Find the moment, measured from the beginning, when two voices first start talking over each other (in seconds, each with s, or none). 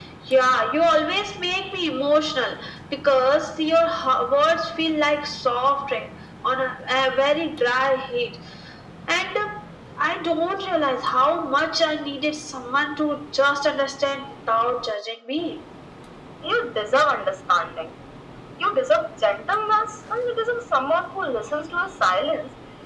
none